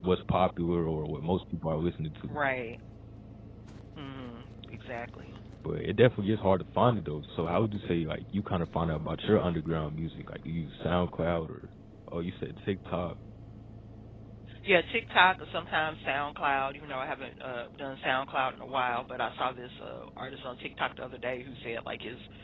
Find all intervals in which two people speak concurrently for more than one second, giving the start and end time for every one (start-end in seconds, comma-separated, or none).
none